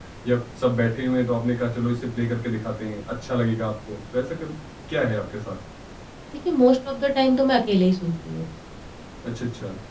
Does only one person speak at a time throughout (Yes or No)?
Yes